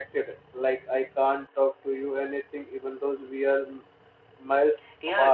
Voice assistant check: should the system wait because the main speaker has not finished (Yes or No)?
No